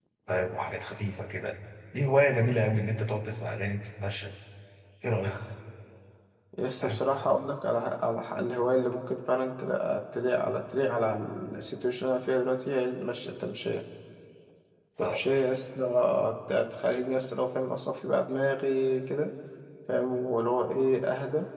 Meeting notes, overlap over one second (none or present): none